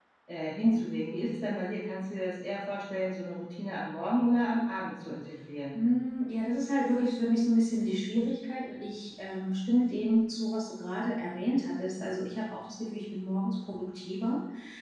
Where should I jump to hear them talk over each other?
none

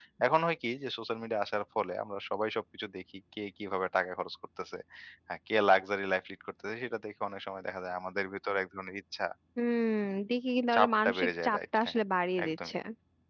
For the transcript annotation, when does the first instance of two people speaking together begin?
10.7 s

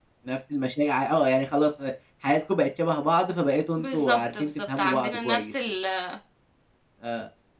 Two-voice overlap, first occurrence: 3.8 s

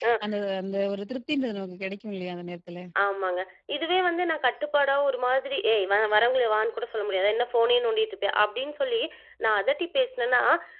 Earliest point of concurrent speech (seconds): none

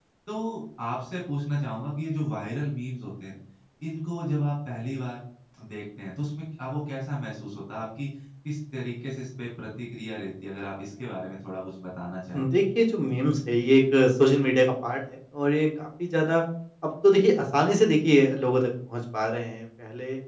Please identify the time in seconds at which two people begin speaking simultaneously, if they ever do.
none

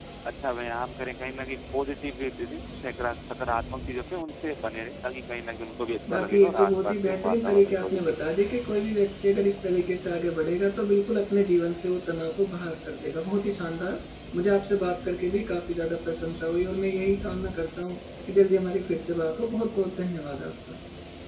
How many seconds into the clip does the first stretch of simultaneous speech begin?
6.1 s

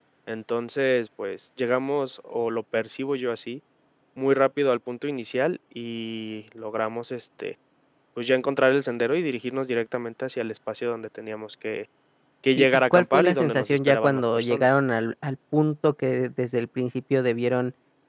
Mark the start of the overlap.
12.6 s

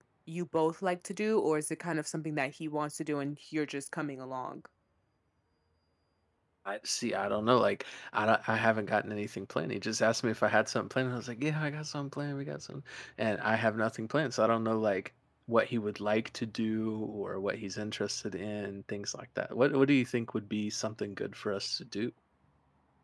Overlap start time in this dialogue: none

